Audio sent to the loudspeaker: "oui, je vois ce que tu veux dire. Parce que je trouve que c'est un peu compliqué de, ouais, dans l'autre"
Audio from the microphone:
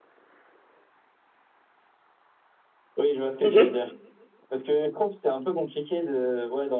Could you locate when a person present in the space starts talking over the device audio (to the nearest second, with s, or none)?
3 s